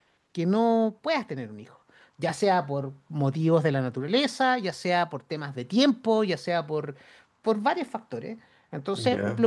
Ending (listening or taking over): listening